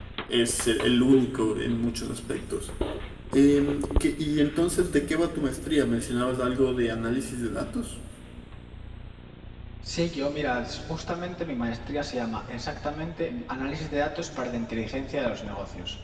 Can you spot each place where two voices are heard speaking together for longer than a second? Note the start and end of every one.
none

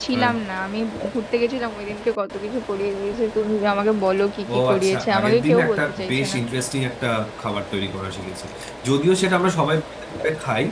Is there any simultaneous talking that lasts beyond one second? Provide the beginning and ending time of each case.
4.5-6.4

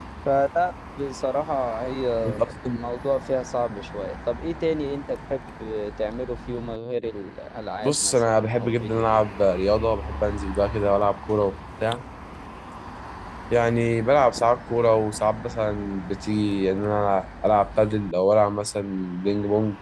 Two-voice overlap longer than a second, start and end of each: 7.8-9.2

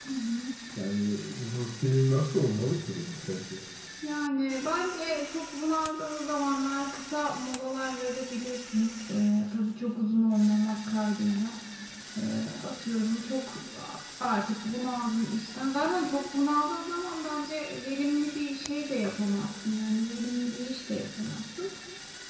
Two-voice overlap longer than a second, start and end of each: none

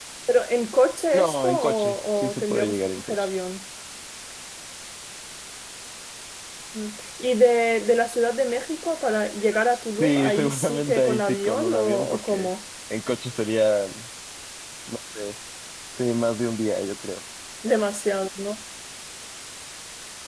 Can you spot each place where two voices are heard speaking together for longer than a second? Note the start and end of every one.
1.1-3.3, 10.0-12.5

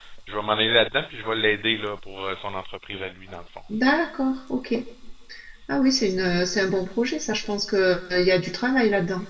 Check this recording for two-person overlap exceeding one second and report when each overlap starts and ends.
none

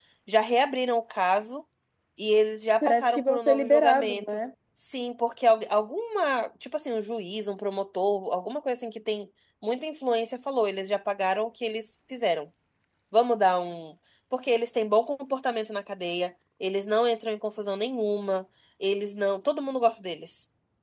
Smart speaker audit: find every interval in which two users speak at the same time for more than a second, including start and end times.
2.8-4.2

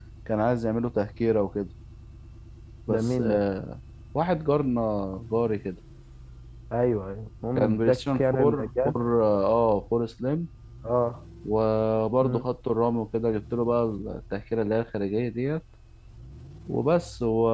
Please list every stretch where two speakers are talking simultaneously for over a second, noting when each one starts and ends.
7.5-8.9

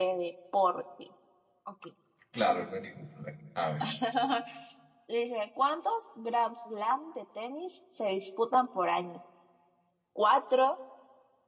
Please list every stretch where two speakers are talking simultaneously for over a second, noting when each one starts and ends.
none

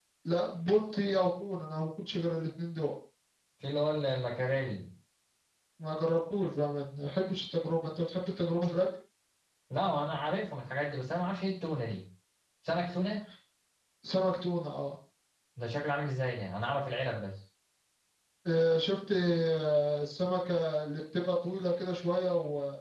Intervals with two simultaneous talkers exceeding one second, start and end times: none

